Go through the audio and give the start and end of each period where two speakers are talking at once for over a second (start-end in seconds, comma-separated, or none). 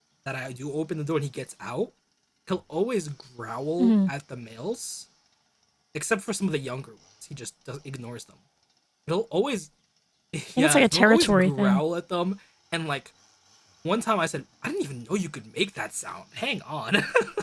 10.6-11.8